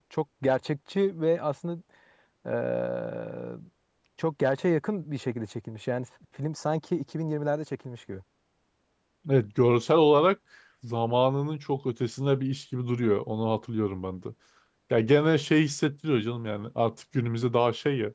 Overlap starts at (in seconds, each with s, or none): none